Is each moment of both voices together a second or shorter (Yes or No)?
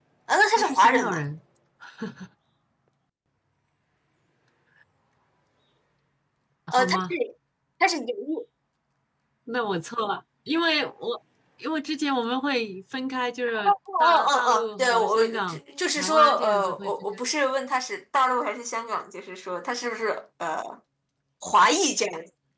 No